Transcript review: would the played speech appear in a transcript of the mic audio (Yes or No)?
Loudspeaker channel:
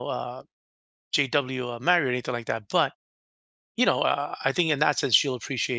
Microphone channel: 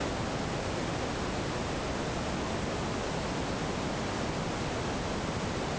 No